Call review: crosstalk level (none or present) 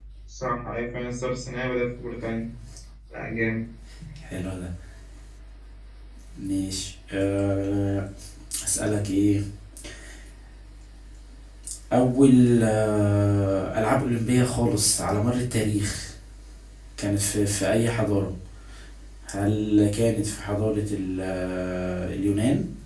none